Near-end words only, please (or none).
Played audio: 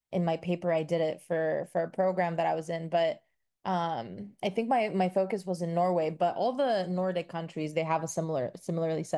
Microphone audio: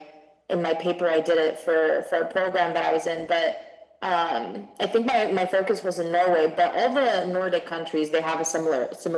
none